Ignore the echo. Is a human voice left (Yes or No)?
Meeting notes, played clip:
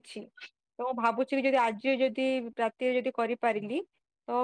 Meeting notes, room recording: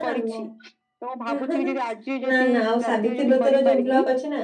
Yes